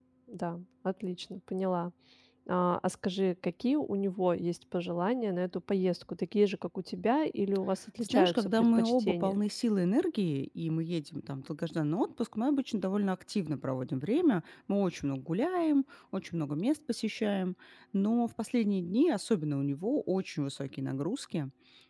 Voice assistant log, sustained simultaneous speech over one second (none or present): present